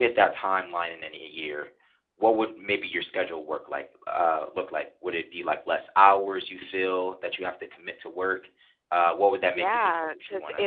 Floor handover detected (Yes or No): Yes